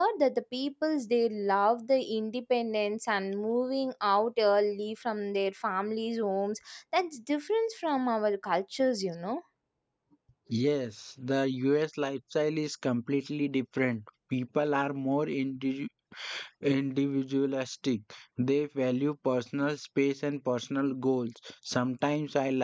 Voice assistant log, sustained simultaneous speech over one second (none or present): none